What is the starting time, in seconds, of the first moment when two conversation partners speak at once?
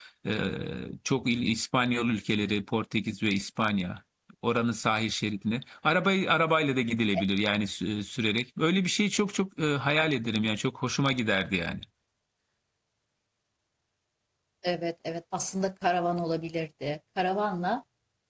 none

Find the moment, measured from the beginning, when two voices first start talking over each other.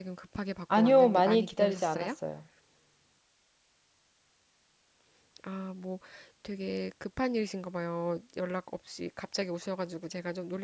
1 s

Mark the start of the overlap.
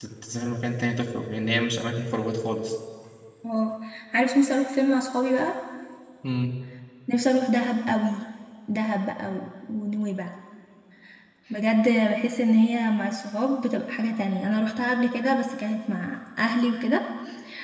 none

